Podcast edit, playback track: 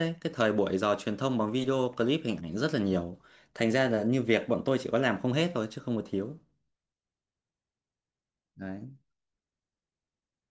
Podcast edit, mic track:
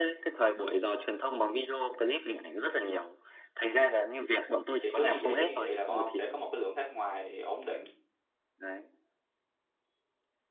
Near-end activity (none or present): present